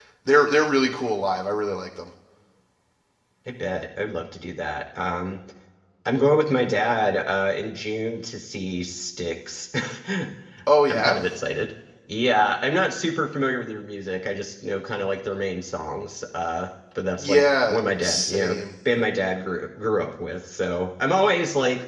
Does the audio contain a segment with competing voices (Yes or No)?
Yes